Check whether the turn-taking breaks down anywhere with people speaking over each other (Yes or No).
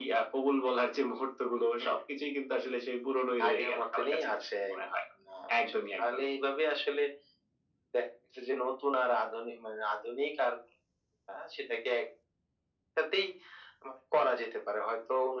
Yes